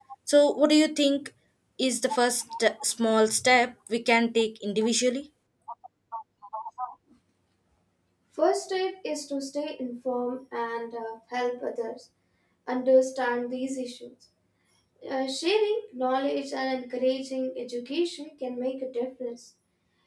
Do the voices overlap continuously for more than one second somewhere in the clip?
No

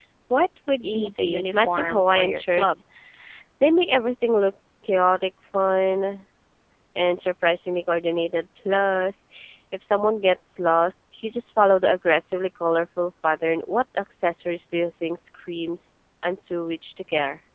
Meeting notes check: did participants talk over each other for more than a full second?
Yes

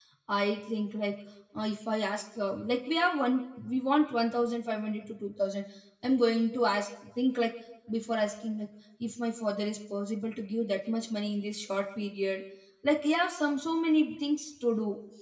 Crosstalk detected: No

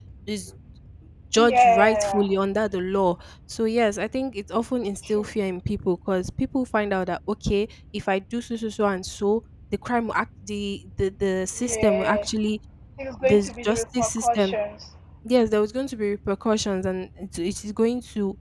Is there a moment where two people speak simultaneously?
Yes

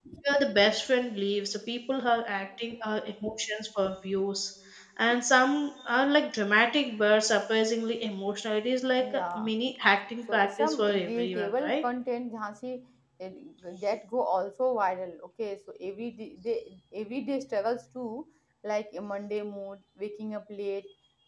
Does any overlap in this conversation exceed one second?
Yes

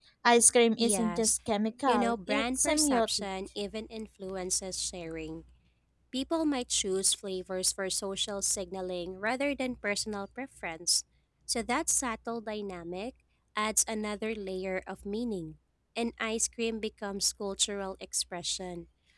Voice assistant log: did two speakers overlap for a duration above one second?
Yes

